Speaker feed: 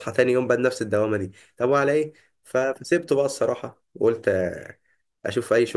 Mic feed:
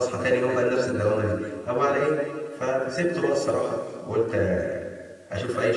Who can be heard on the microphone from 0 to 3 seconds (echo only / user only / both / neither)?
echo only